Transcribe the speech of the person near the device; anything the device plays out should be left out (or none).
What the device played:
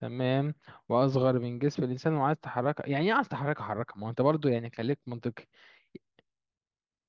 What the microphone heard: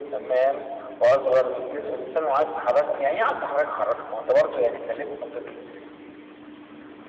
none